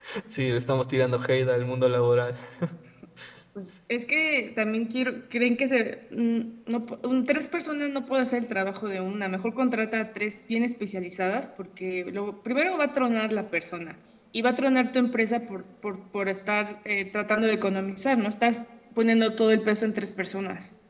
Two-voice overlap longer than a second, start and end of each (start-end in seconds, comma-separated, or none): none